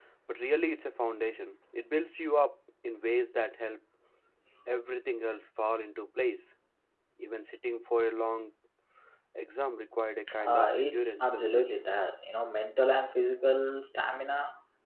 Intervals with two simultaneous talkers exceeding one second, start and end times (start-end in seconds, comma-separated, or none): 10.4-11.6